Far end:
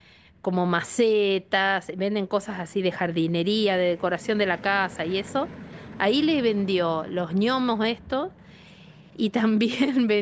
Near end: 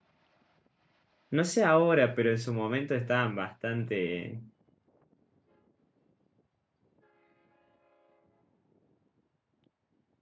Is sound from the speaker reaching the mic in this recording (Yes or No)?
No